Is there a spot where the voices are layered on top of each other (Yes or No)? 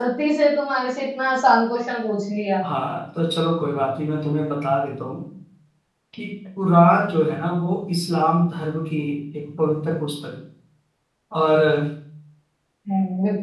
No